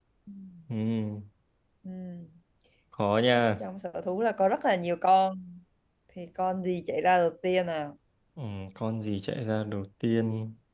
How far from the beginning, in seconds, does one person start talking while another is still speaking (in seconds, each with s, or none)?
none